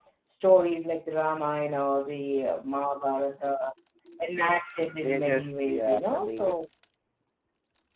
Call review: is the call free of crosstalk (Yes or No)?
No